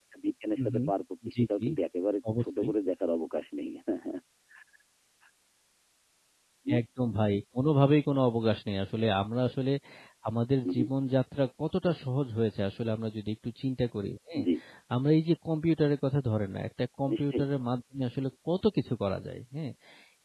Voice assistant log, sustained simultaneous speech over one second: none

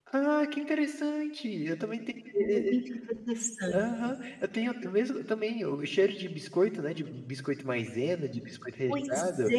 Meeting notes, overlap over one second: none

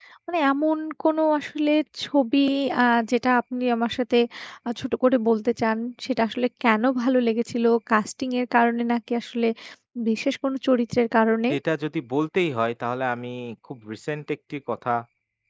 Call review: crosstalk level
none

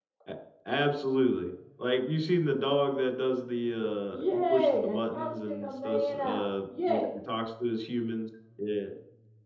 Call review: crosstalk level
present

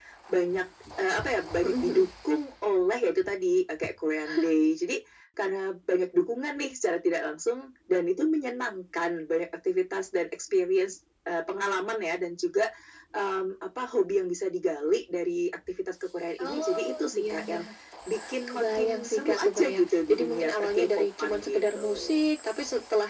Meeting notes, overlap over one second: present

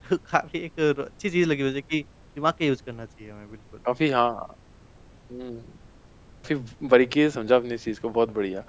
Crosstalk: none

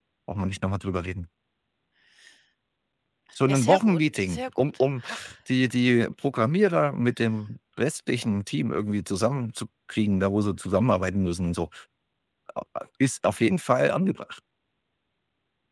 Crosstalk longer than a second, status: present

